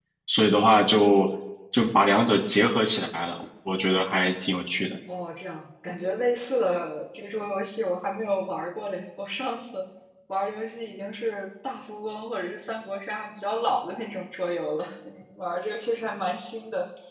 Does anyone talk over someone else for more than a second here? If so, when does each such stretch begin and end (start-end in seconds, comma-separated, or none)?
none